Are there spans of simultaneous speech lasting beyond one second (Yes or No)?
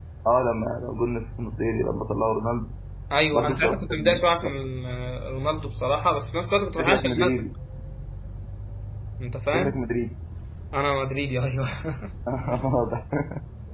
Yes